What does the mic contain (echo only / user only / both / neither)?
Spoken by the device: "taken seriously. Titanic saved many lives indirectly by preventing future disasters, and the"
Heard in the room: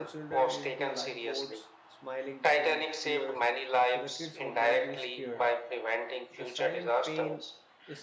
both